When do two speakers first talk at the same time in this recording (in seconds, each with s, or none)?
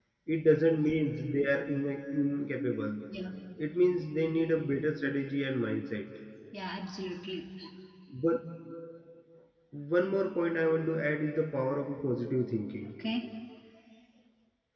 none